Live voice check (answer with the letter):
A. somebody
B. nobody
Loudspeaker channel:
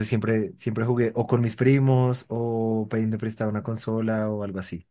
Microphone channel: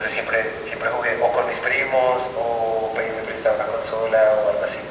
B